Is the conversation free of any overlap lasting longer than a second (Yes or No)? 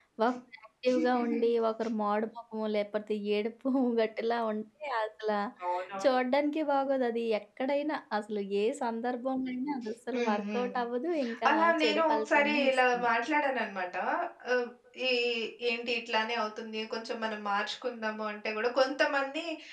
No